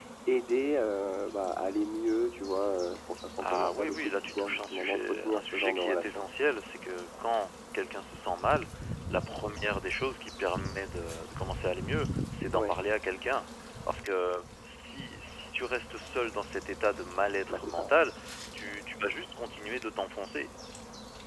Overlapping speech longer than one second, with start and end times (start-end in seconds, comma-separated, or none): 3.4-6.2